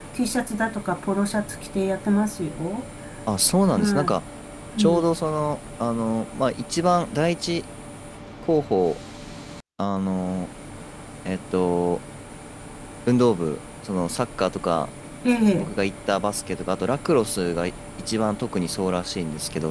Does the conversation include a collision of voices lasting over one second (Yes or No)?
No